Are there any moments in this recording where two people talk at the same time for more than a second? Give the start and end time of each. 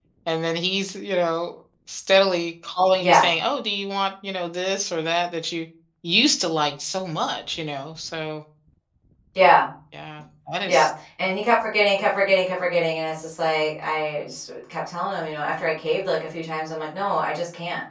none

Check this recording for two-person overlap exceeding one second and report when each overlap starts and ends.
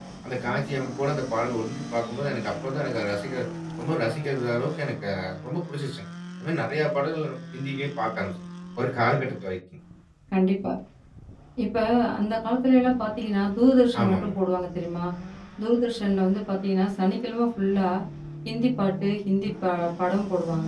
none

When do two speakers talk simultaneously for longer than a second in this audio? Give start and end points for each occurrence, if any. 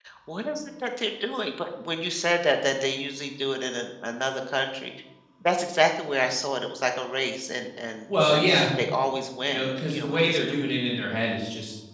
9.5-10.7

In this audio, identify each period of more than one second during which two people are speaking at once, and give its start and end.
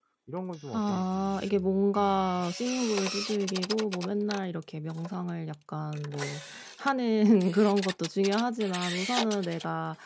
0.7-2.4

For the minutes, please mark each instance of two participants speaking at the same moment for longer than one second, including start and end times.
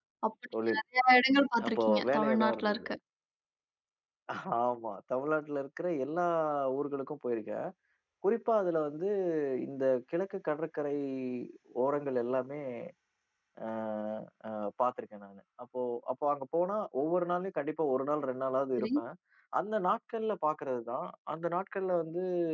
1.7-2.9

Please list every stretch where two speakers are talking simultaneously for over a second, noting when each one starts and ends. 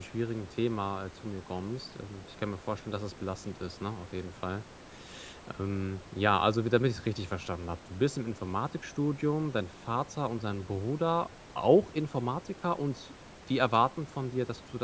none

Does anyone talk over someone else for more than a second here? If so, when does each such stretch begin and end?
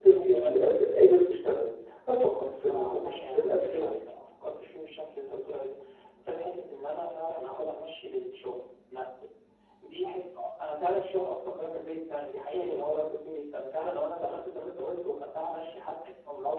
2.7-3.9

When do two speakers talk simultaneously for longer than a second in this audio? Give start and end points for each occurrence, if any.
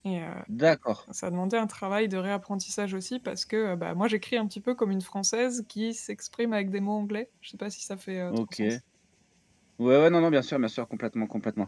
none

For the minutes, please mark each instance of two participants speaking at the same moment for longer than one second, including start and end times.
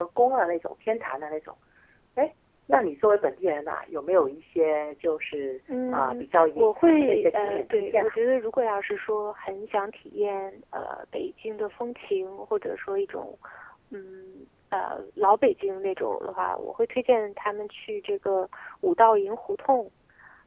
5.9-8.2

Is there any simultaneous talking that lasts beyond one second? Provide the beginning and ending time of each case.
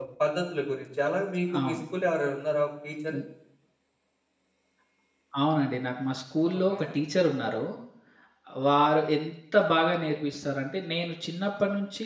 none

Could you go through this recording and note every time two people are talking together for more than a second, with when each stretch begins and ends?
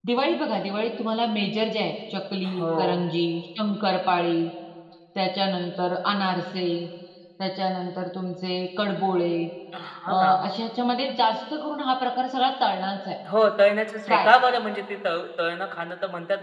none

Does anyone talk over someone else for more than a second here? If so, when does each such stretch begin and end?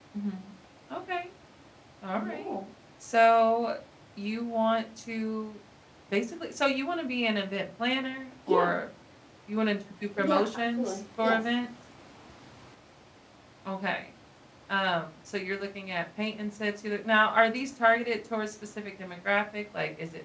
10.2-11.4

